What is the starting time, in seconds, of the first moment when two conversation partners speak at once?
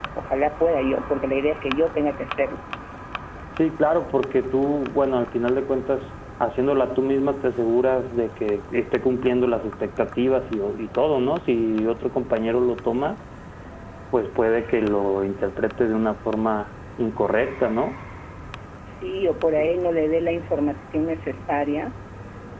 none

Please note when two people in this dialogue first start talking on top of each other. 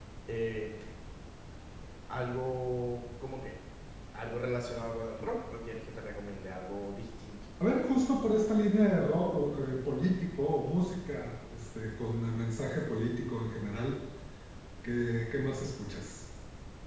none

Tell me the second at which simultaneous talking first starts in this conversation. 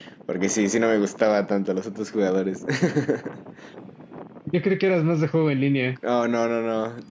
none

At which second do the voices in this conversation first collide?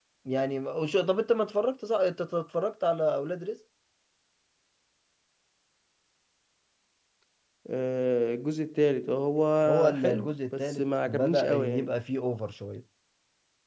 9.7 s

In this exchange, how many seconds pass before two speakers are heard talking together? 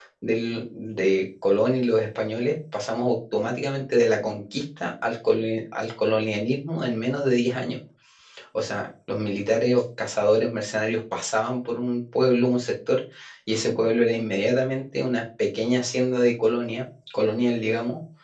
none

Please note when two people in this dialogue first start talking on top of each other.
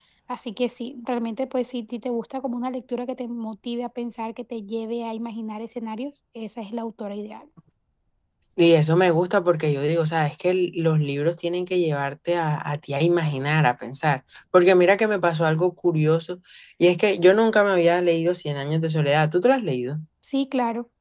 none

